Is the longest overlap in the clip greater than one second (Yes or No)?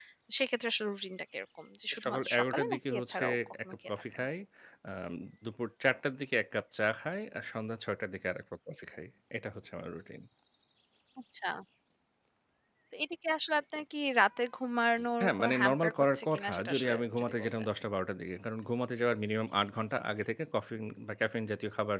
Yes